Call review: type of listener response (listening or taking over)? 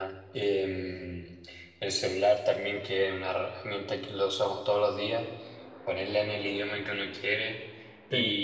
listening